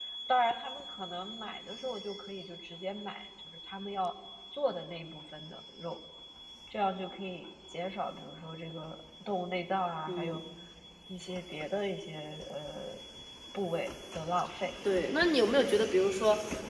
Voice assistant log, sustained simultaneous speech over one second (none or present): none